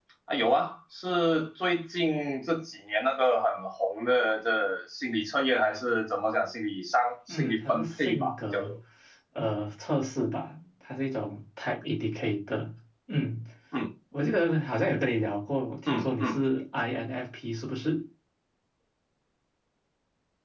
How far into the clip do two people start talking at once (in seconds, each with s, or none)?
7.3 s